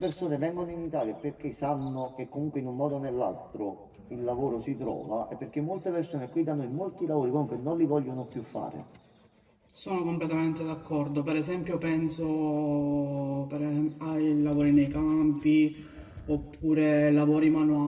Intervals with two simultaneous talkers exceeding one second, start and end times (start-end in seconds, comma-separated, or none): none